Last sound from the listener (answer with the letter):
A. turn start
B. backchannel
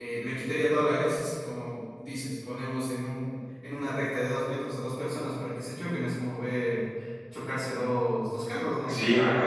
A